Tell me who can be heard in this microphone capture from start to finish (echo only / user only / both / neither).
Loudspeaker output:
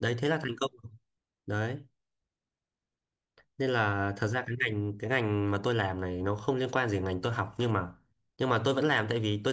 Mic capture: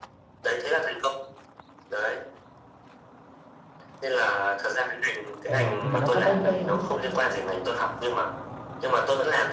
both